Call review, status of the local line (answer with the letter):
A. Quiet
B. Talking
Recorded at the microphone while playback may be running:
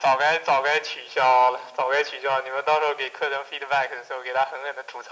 A